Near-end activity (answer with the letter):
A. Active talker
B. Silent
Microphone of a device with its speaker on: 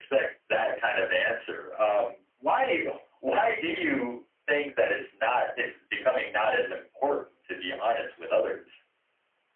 B